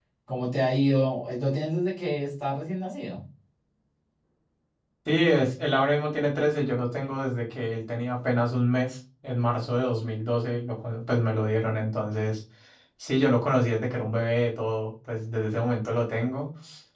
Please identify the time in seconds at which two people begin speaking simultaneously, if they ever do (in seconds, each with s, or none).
none